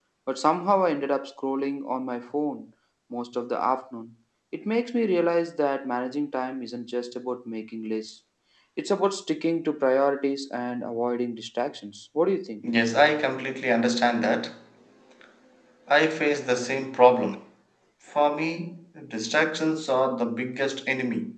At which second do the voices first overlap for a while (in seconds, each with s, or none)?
none